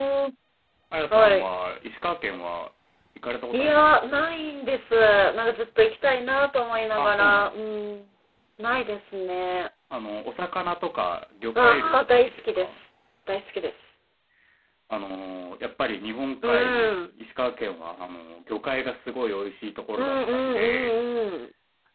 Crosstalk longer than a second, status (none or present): present